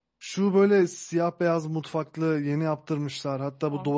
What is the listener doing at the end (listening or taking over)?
listening